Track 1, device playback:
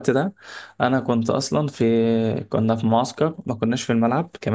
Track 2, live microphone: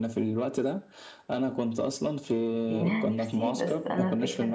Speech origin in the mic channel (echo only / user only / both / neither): both